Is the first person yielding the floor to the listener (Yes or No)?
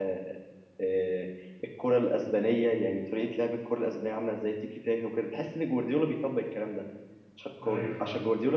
No